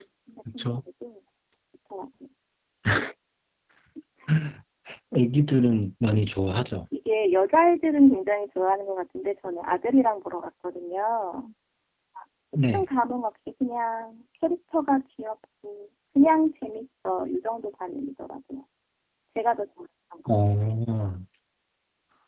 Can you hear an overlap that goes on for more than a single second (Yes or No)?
No